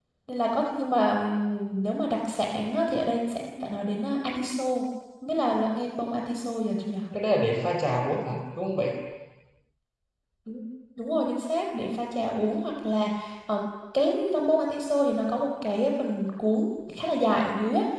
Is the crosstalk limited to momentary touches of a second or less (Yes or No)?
Yes